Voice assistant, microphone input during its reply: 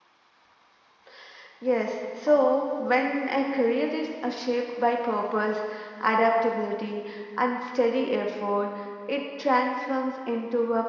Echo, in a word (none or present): none